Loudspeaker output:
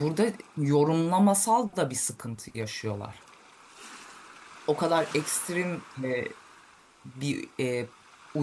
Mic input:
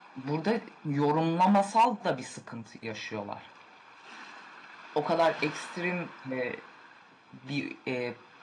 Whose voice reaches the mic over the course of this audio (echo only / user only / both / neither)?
echo only